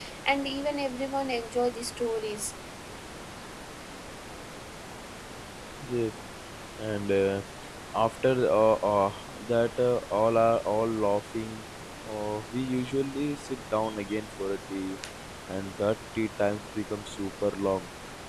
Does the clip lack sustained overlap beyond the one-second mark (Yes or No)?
Yes